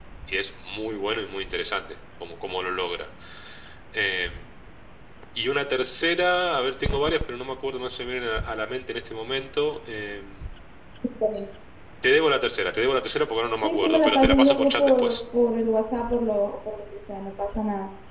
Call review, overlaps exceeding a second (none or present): present